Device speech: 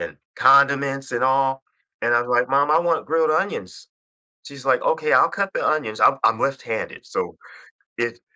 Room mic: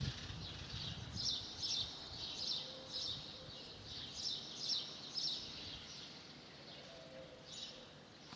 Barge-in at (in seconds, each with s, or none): none